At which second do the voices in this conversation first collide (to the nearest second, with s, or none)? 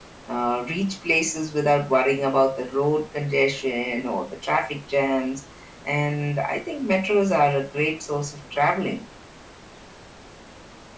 none